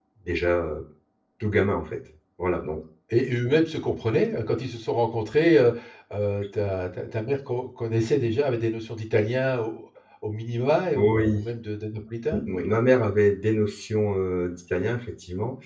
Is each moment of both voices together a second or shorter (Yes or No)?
Yes